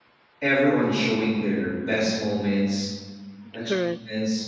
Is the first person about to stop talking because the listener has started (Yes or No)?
No